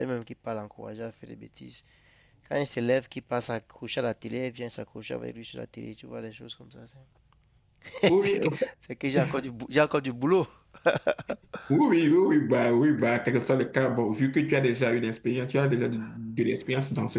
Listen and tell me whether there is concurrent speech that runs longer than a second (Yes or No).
No